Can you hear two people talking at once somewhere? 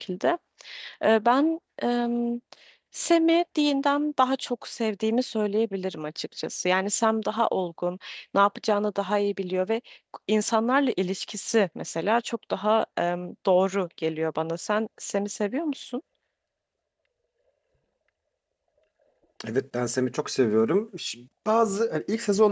No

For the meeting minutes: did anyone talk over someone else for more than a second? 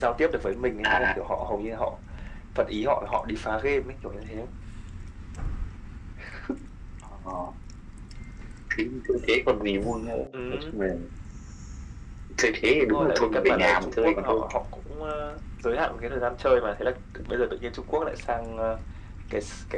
Yes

